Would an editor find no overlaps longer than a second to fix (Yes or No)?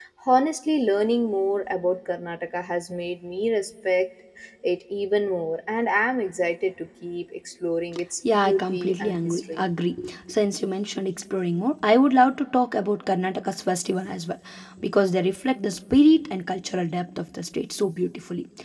No